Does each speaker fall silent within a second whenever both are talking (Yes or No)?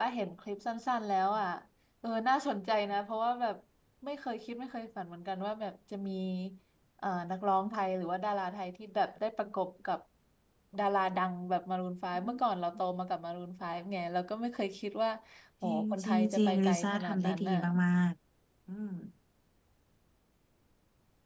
No